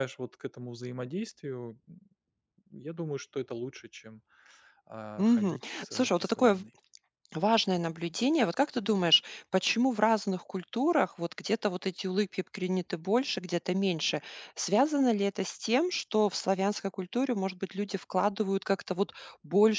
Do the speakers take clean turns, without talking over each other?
No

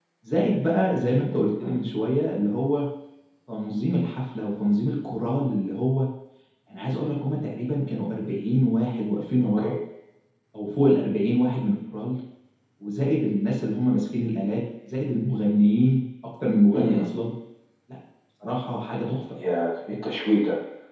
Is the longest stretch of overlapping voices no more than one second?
Yes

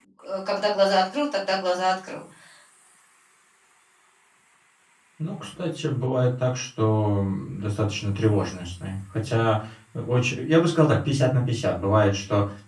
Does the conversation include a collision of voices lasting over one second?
No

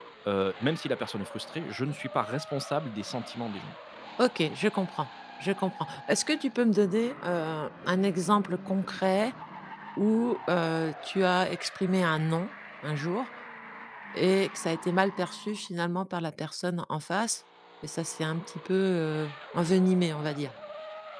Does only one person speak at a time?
Yes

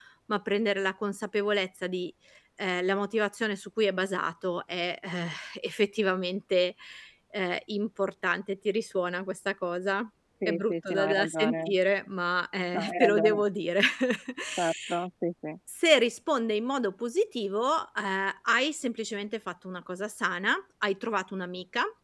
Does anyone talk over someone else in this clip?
Yes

